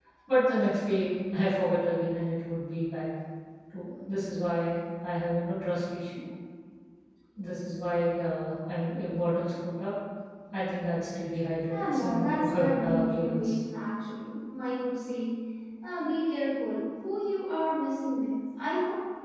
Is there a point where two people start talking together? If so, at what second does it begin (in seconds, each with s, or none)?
11.7 s